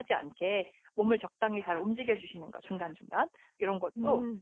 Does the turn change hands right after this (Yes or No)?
No